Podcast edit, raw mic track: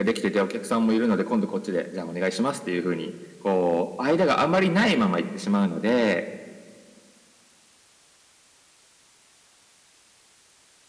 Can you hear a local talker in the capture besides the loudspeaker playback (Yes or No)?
No